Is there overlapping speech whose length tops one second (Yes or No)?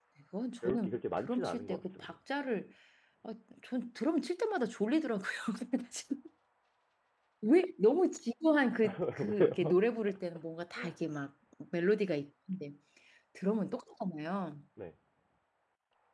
Yes